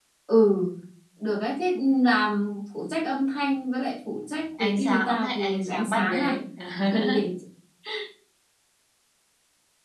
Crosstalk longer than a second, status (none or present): present